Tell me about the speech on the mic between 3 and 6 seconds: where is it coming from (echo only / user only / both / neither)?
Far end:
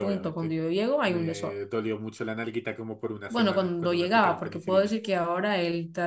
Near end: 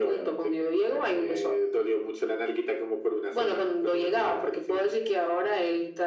echo only